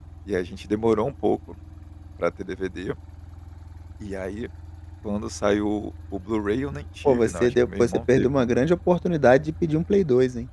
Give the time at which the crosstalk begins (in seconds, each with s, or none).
7.0 s